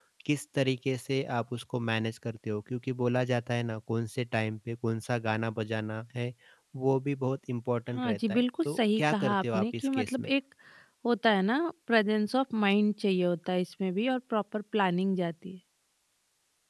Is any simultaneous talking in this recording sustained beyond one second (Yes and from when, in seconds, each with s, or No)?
Yes, from 7.9 s